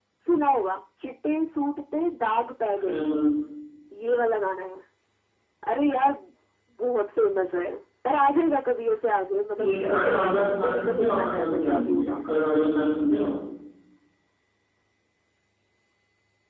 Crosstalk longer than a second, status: present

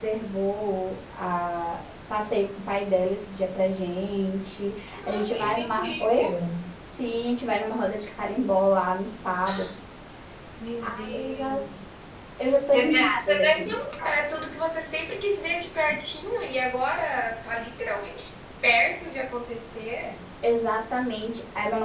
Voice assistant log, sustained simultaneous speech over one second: present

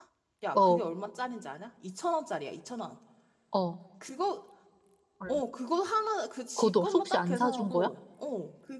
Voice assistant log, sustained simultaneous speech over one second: present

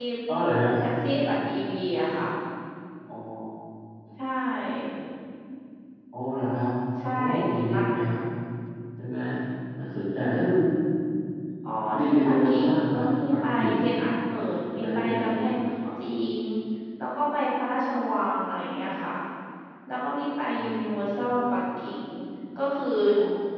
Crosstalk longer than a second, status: present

